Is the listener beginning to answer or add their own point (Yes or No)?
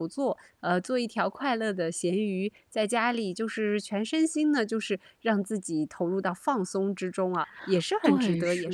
Yes